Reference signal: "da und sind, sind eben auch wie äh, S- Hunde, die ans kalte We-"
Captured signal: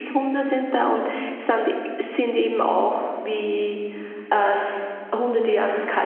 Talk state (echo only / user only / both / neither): echo only